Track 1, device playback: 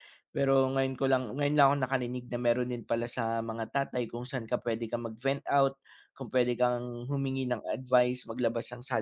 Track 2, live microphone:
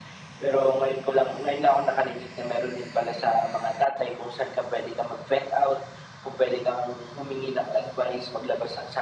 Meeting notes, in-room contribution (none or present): none